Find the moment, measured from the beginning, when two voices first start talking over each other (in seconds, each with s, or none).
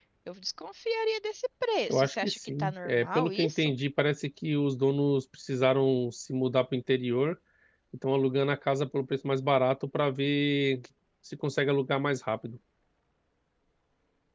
1.9 s